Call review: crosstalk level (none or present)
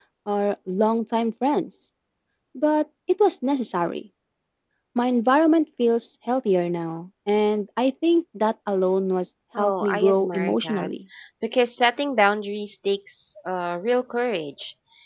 present